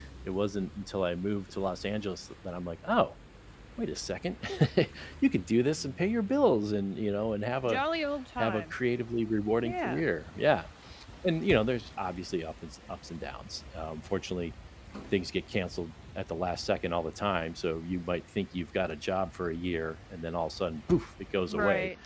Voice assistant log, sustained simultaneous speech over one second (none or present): none